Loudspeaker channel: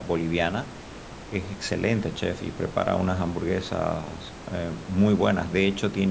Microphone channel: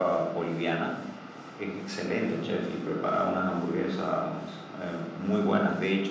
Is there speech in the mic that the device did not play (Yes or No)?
No